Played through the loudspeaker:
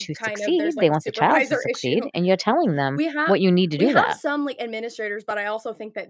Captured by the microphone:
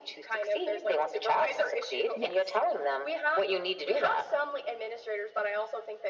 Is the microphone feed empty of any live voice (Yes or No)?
No